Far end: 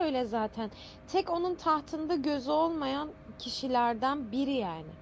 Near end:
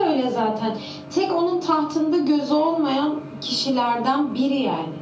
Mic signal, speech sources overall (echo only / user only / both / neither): echo only